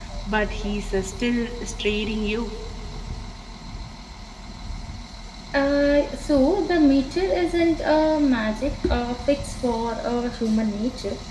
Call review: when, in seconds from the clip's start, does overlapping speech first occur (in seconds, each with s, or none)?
none